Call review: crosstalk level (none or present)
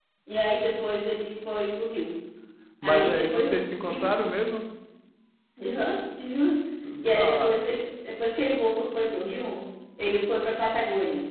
present